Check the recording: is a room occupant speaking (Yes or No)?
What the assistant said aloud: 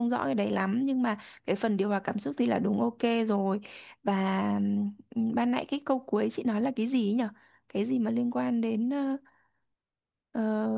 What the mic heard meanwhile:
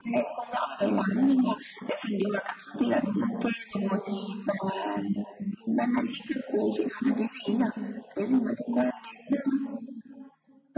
No